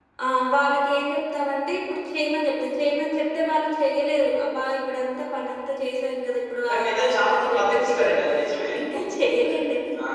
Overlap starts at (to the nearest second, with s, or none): 7 s